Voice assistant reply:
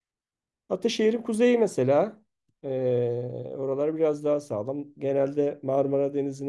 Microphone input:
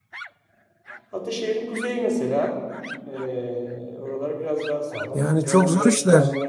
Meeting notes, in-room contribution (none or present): present